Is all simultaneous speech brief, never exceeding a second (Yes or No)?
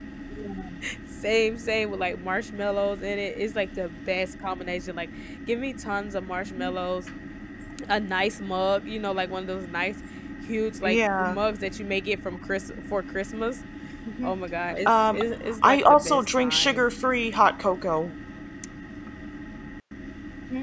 No